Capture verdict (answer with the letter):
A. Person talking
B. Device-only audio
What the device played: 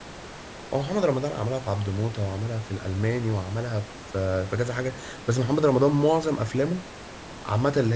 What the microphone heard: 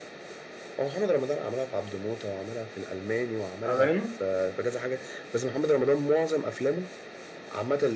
A